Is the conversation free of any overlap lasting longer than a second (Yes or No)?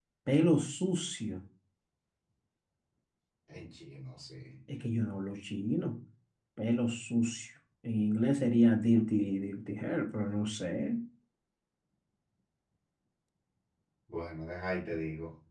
Yes